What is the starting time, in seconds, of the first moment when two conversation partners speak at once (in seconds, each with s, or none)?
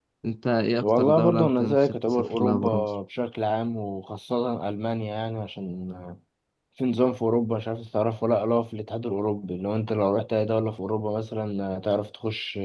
0.8 s